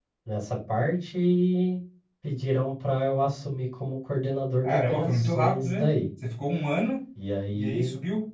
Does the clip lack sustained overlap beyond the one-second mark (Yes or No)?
No